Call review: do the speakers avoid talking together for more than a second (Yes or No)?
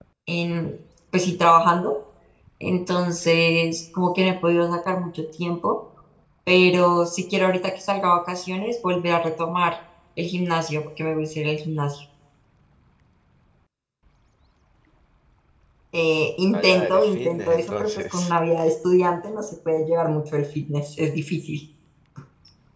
No